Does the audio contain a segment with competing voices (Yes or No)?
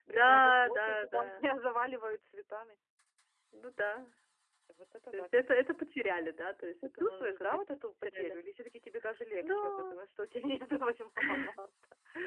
Yes